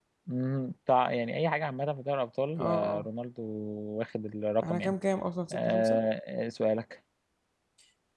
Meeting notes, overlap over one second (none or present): none